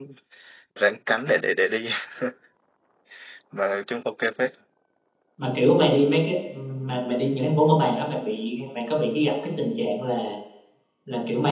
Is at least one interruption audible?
No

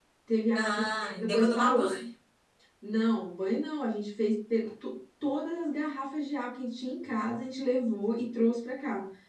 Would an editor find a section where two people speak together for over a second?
Yes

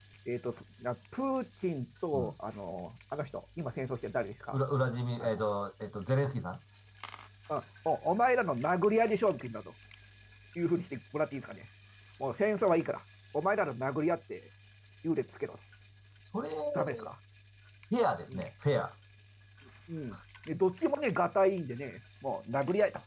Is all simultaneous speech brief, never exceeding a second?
Yes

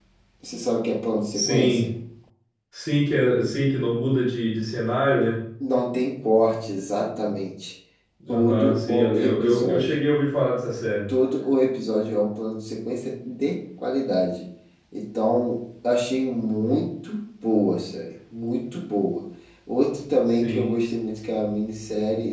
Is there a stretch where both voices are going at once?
Yes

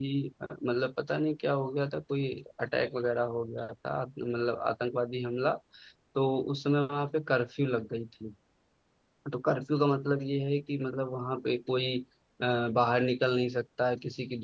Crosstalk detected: No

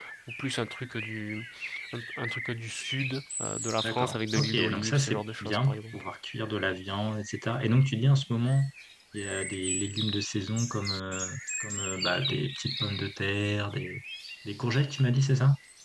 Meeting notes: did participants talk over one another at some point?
Yes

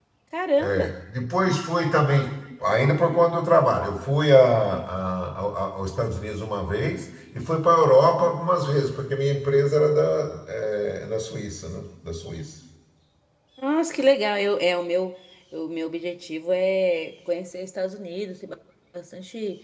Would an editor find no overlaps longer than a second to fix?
Yes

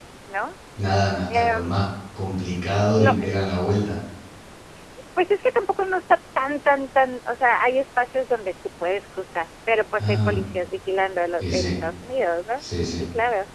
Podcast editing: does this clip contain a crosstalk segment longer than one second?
No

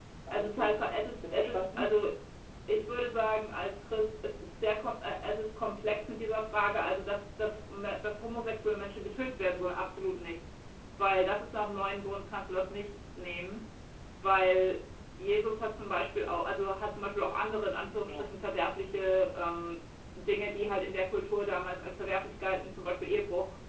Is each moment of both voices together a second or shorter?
No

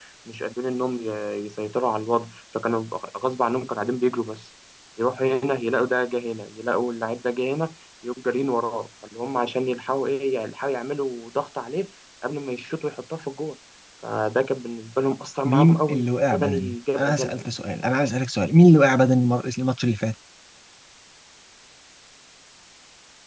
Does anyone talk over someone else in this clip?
Yes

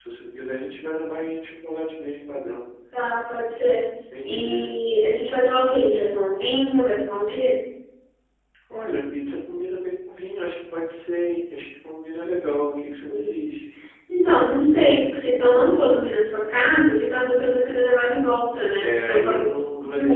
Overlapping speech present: Yes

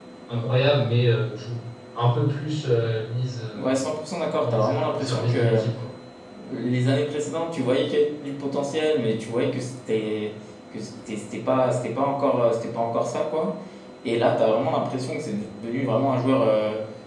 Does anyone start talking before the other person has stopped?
Yes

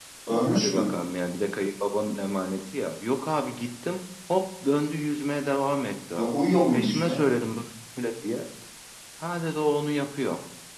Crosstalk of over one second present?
No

